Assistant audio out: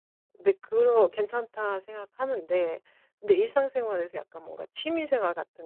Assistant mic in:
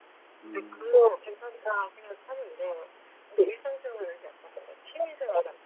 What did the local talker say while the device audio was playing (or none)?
음.